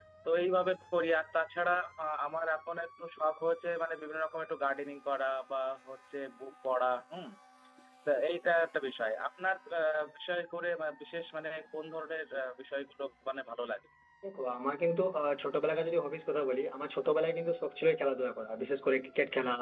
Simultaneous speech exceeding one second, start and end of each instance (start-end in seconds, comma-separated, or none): none